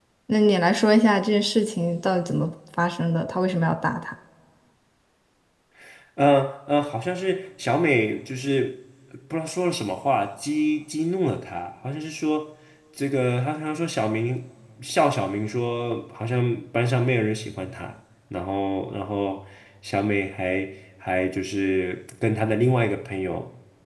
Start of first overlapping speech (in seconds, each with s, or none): none